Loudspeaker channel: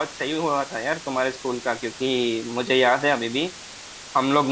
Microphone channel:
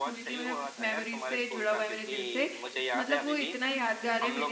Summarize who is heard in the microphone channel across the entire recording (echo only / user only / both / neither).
both